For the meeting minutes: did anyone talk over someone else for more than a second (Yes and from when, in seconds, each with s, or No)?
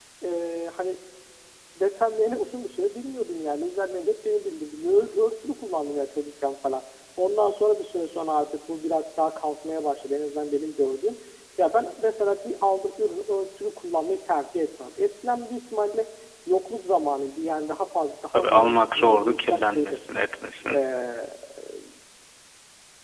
Yes, from 18.3 s